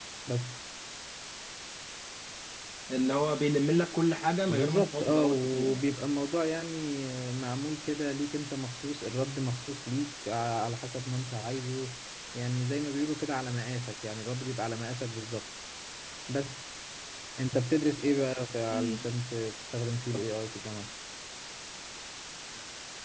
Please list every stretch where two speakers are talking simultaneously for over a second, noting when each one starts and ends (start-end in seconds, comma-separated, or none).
4.5-5.8